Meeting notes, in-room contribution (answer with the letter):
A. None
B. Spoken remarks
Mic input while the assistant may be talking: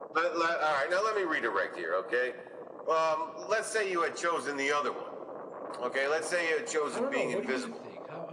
B